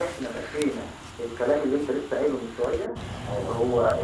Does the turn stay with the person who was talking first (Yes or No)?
Yes